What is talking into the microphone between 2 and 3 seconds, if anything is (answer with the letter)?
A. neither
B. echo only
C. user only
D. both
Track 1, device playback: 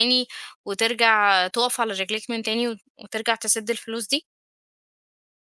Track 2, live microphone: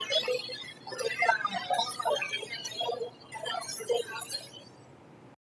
B